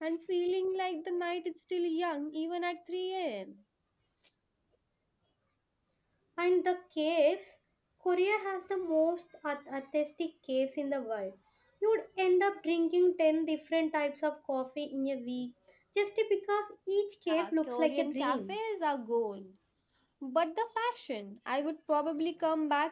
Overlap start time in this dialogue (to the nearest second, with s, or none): 17 s